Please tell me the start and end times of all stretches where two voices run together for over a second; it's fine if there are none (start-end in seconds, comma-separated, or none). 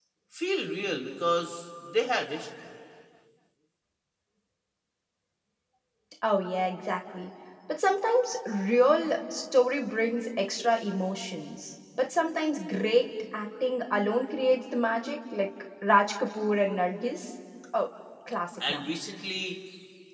none